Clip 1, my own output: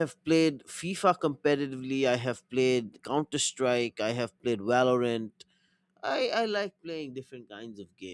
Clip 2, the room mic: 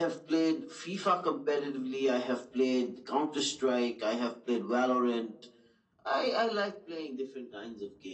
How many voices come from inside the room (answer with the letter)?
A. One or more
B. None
B